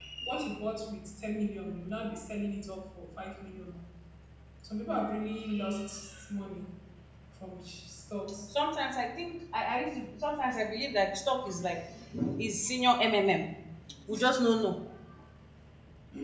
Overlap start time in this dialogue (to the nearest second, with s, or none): none